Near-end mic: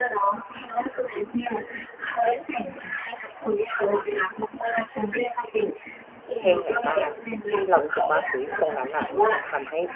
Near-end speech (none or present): present